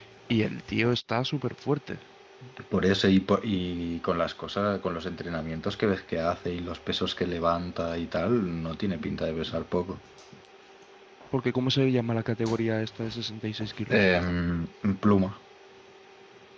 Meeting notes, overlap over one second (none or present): none